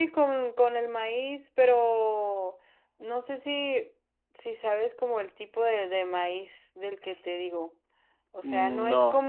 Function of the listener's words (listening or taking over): listening